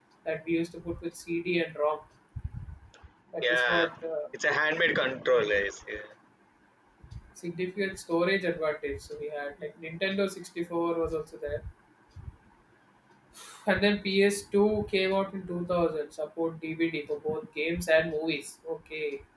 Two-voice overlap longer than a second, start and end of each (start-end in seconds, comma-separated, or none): none